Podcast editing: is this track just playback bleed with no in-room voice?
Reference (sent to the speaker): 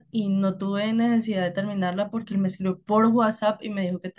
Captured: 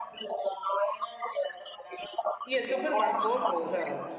No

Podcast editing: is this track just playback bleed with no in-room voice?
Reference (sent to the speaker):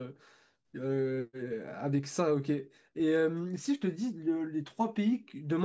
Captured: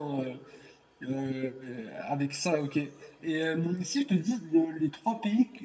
Yes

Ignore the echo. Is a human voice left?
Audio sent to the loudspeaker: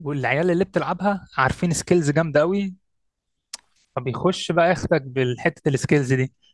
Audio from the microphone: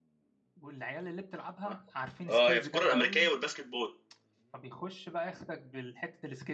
Yes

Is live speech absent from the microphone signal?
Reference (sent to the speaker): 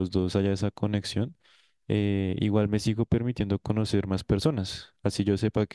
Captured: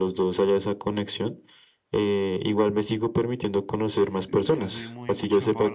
No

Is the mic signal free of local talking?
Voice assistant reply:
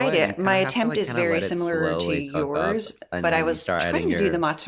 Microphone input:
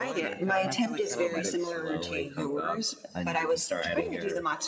Yes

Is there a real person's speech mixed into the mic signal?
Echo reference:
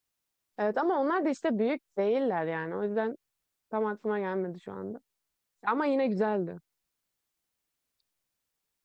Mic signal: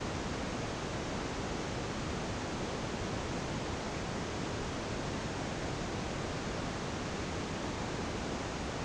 No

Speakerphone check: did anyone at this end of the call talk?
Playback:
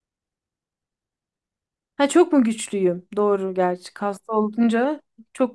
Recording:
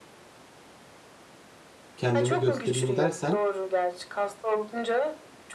Yes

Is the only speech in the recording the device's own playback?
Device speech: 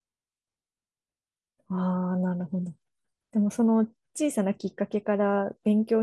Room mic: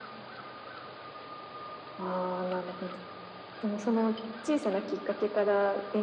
Yes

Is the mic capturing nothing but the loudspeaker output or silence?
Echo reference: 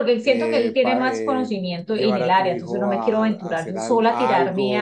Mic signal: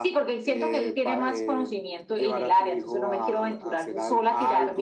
Yes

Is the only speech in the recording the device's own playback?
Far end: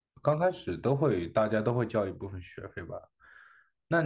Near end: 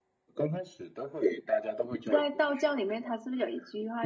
No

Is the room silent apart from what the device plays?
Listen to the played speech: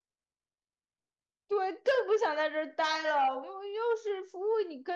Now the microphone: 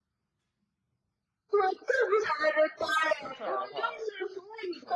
No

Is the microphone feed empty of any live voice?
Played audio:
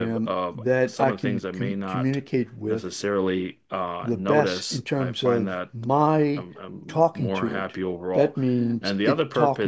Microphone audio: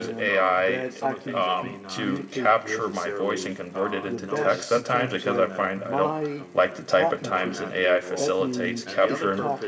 No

